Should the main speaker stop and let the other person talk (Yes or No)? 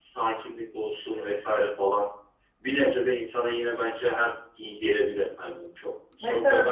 Yes